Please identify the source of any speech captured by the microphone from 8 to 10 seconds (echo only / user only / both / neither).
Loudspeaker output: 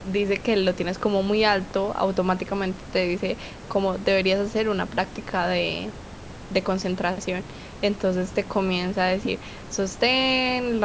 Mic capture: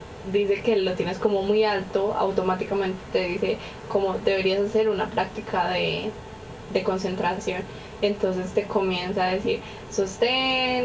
echo only